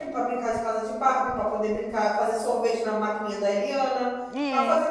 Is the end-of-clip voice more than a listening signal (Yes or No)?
No